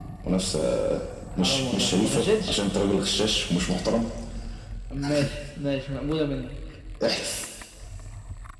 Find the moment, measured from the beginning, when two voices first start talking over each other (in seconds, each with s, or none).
1.4 s